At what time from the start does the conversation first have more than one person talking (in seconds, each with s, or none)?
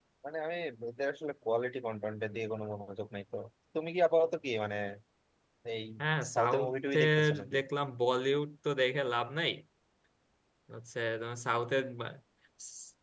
6.3 s